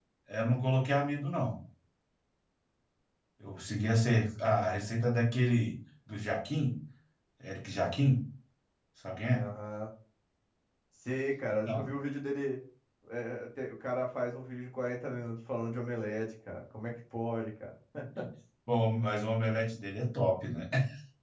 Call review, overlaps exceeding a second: none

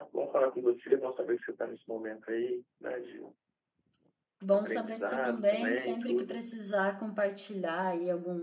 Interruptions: present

